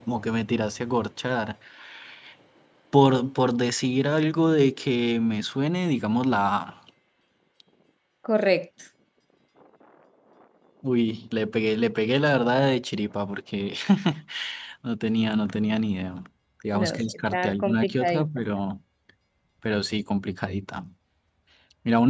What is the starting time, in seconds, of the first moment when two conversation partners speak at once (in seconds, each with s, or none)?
16.7 s